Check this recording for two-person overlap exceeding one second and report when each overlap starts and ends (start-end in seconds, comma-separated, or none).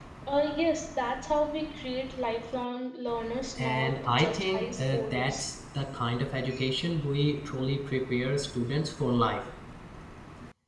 3.6-5.5